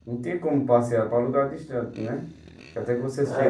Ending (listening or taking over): taking over